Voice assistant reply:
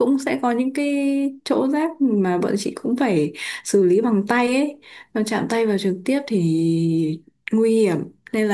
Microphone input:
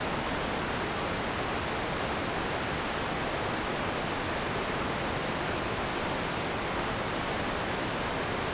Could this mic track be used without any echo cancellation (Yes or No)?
Yes